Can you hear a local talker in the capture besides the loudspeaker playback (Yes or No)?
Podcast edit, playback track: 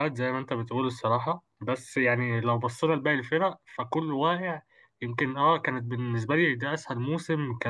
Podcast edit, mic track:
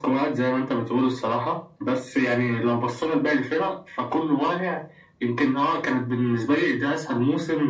No